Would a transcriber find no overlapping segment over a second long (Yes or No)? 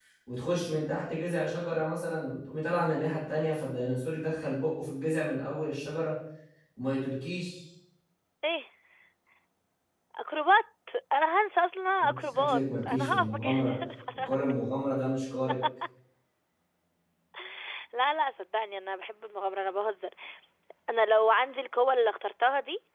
No